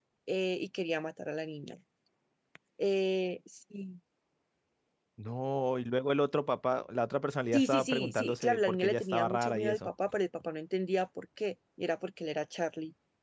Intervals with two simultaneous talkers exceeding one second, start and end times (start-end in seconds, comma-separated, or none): 7.5-9.9